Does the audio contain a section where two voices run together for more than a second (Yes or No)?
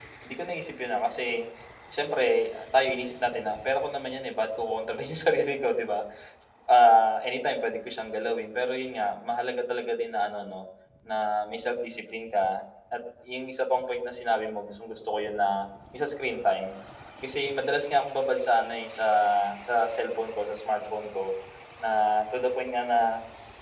No